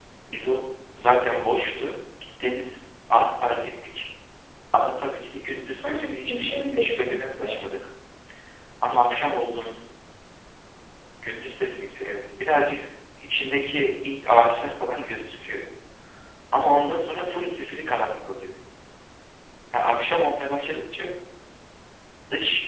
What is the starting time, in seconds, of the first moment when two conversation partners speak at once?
5.8 s

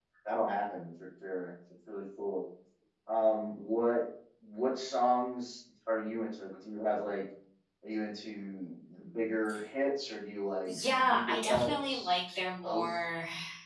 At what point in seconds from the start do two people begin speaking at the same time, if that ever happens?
10.7 s

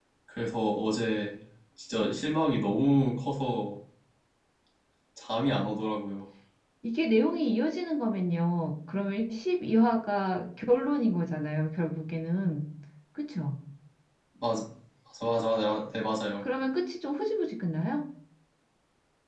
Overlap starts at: none

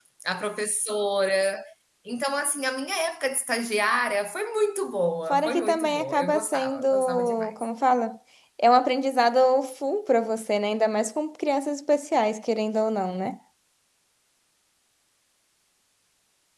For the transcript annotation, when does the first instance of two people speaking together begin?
5.3 s

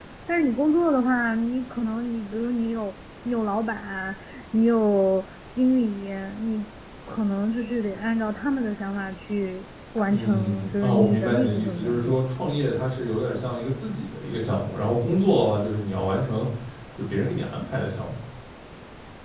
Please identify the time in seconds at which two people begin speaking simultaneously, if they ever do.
10.1 s

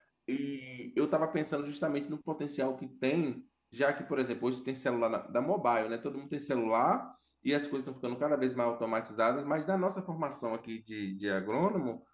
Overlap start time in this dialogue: none

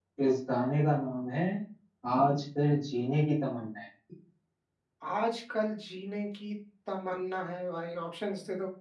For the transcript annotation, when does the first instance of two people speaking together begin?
none

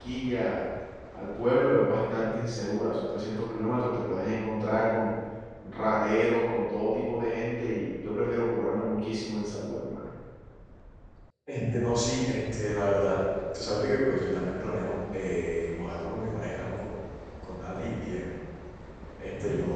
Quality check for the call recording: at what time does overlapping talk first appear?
none

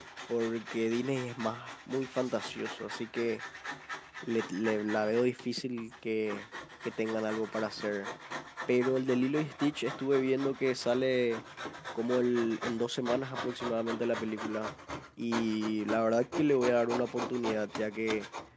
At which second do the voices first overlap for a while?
none

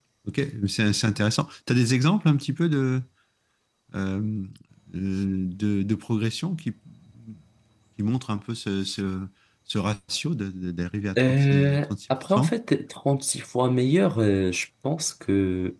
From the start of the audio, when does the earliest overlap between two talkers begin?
11.2 s

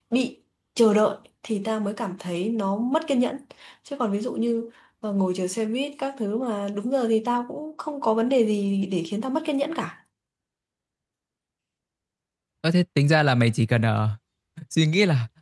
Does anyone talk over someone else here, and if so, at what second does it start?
none

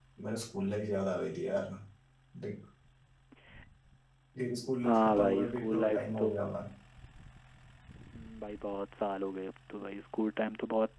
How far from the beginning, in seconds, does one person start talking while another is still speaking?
4.8 s

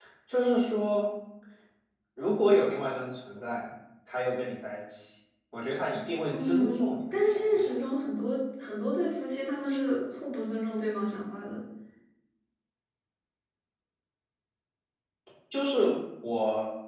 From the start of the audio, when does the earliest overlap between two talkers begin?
6.3 s

